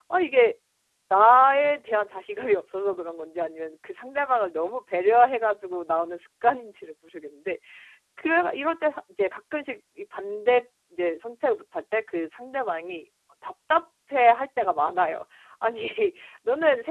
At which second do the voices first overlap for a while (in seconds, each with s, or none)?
none